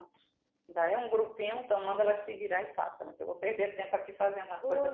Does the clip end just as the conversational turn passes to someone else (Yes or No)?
Yes